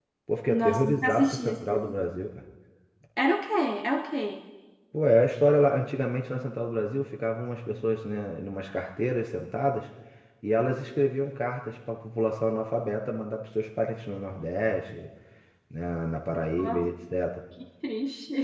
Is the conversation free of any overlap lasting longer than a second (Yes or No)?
No